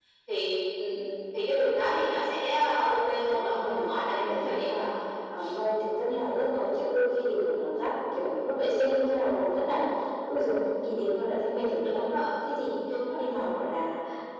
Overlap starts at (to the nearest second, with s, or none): 3 s